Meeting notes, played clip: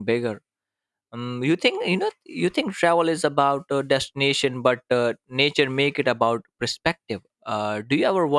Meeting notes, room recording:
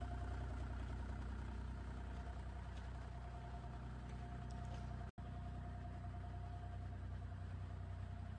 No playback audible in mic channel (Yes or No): Yes